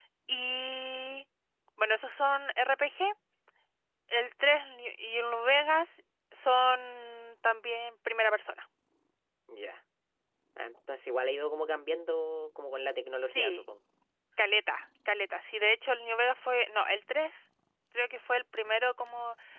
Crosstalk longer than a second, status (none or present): none